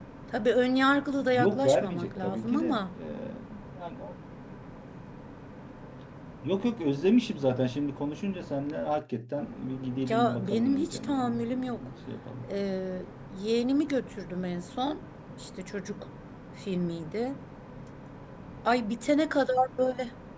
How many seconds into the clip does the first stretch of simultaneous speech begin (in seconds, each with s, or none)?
1.3 s